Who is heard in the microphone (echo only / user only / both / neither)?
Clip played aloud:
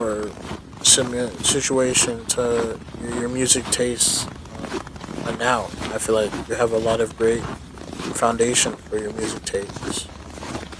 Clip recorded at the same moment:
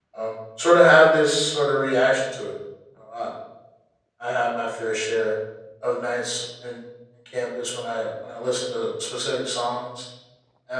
user only